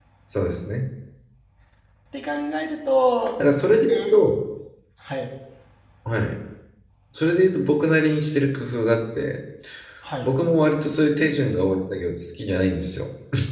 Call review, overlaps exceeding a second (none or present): none